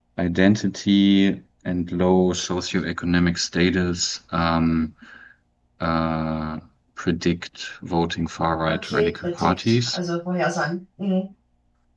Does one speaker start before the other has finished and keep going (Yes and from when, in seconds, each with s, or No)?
Yes, from 8.7 s